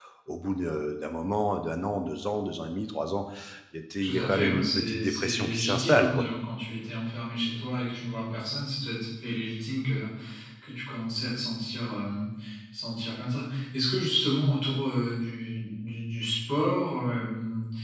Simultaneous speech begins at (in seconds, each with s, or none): 4.0 s